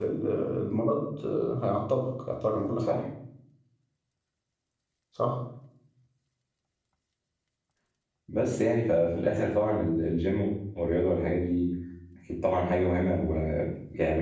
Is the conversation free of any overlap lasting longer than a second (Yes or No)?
Yes